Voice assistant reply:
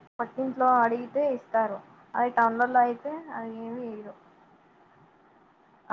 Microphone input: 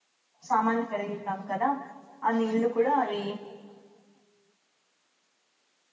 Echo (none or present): none